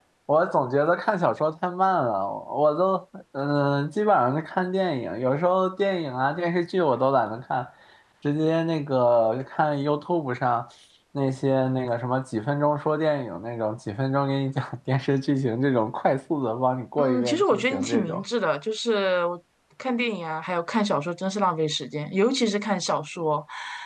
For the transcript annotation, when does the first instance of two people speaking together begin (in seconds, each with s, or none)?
17.0 s